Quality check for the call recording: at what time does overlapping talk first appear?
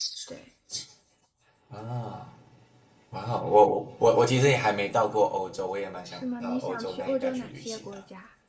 6.0 s

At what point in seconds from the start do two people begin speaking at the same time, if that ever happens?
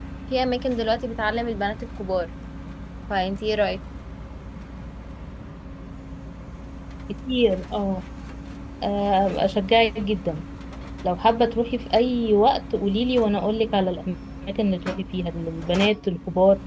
none

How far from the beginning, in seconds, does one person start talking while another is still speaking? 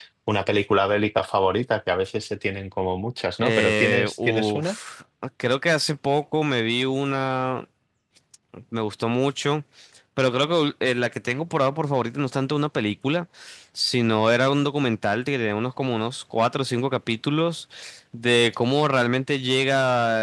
3.4 s

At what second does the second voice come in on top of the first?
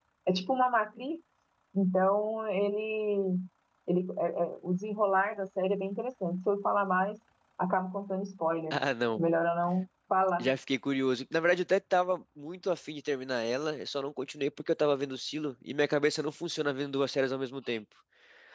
none

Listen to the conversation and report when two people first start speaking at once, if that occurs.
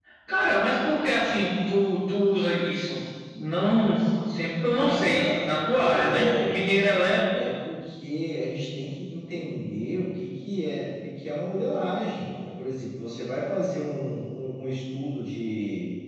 4.8 s

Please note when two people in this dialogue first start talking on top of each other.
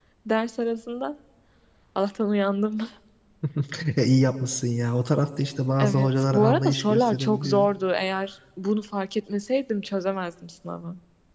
5.8 s

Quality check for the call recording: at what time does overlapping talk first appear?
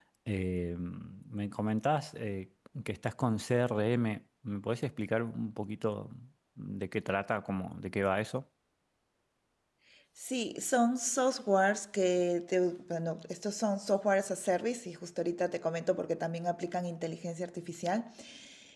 none

